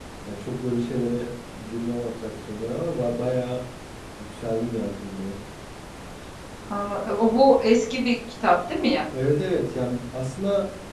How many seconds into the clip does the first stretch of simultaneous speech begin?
none

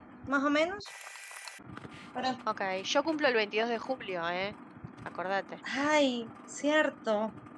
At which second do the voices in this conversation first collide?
none

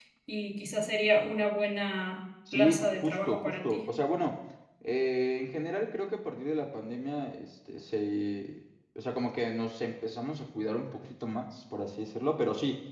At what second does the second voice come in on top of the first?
2.5 s

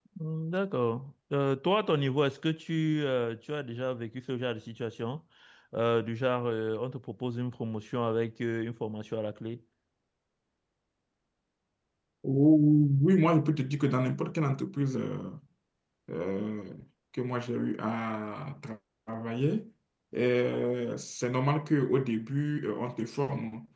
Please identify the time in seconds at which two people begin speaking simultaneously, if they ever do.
none

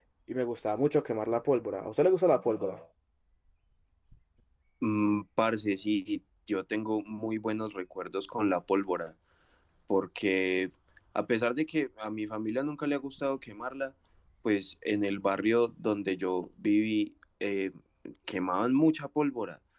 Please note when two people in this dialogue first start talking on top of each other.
none

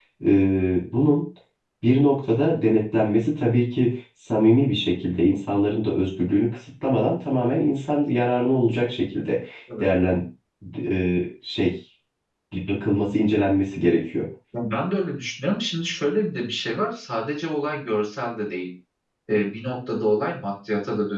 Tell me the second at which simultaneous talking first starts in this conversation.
none

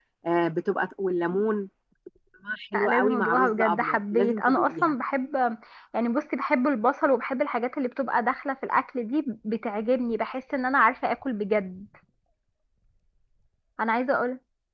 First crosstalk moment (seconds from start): 2.7 s

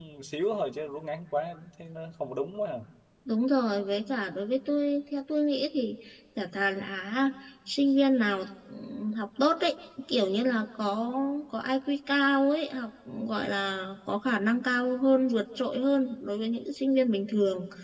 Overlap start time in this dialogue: none

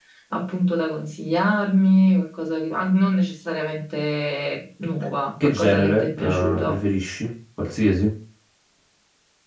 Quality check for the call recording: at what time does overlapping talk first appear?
5.4 s

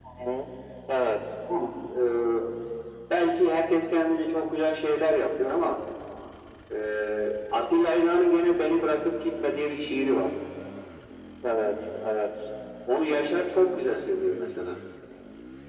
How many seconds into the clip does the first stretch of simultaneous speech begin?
none

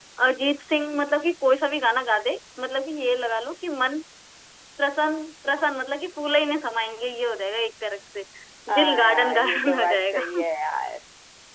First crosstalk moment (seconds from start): 8.8 s

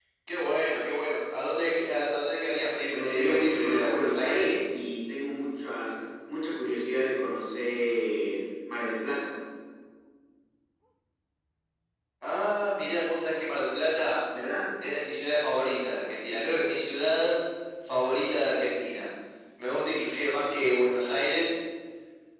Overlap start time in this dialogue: 2.9 s

